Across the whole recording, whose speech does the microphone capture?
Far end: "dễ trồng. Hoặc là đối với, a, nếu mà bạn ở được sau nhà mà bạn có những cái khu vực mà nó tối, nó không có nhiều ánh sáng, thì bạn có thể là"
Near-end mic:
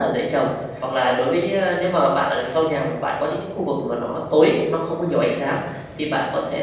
echo only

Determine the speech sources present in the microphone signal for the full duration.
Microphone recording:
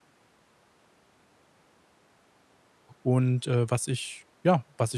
user only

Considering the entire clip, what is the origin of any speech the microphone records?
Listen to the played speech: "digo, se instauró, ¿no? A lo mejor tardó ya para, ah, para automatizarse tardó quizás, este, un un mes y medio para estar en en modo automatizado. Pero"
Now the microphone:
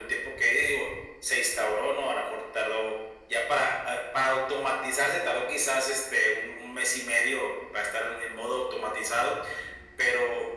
echo only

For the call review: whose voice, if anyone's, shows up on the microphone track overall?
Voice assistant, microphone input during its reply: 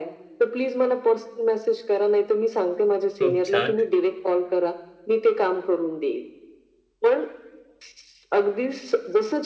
both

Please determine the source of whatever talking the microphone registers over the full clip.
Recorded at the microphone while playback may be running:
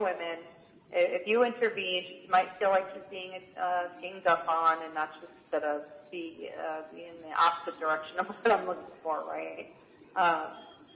echo only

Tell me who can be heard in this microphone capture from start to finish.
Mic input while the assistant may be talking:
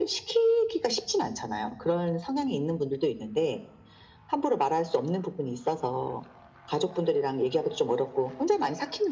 echo only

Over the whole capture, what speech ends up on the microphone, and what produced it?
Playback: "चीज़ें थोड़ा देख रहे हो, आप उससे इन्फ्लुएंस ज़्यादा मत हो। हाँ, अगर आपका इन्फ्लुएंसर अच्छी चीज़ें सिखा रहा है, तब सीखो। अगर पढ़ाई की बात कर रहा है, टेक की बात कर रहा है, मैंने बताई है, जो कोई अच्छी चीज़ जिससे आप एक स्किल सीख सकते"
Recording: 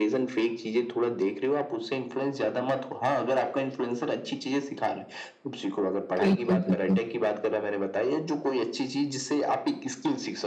both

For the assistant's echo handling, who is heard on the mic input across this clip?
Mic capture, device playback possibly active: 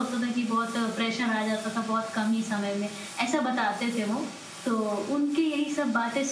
echo only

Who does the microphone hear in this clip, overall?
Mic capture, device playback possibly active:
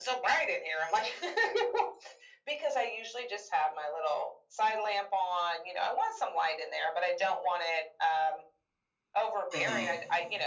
both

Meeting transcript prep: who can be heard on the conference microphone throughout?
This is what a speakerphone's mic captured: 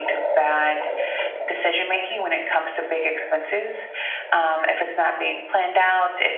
echo only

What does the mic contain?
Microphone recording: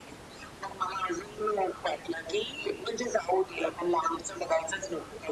echo only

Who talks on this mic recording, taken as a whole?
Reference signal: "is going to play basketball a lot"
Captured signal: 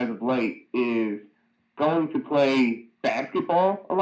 echo only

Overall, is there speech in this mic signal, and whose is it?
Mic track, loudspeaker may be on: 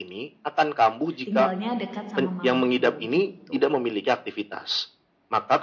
both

